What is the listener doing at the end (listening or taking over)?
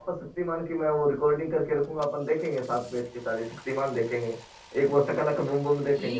taking over